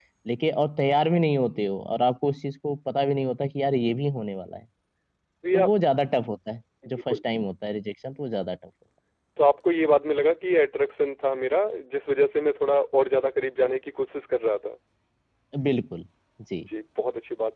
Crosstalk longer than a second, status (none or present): none